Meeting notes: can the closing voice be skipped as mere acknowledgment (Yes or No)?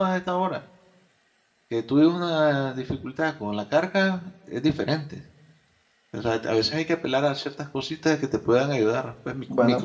No